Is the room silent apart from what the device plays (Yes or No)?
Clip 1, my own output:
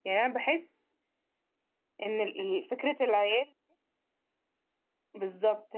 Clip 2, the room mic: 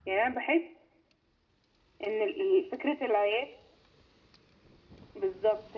Yes